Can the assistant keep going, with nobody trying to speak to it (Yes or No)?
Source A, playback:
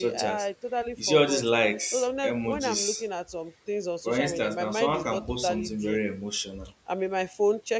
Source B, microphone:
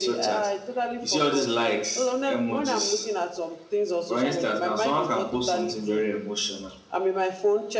Yes